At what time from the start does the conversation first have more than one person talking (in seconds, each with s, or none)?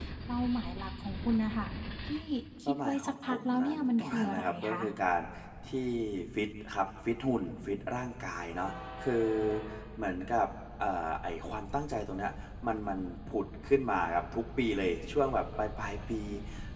2.7 s